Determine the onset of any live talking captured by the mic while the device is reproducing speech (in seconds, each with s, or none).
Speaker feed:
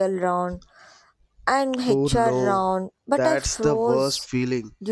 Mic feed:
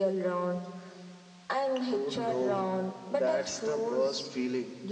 none